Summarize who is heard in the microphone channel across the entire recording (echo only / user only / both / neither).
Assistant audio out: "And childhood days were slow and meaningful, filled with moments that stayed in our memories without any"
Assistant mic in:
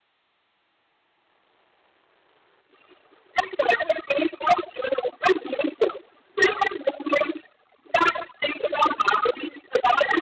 echo only